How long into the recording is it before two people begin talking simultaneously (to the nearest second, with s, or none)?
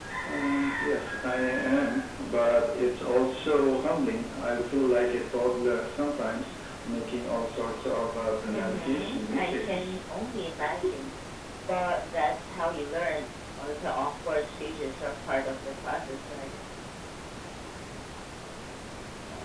8 s